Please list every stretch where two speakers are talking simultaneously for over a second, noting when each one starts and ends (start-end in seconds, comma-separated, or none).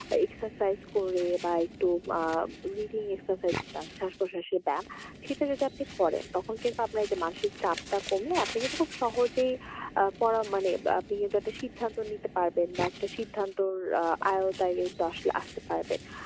none